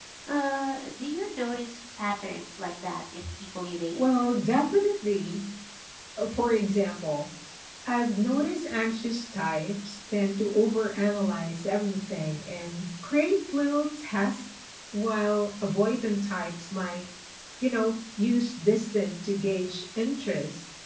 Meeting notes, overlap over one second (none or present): none